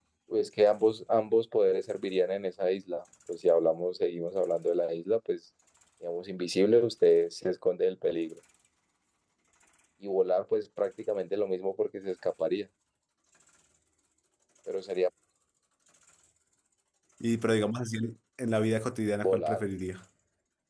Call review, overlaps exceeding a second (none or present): none